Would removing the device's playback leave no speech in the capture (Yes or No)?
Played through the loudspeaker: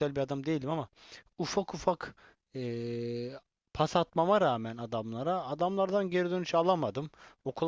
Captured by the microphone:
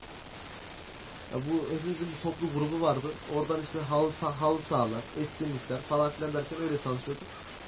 No